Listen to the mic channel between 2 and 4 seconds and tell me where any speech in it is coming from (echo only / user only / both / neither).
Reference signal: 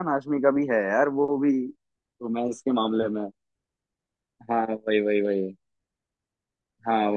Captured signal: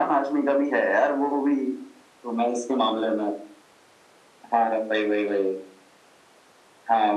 echo only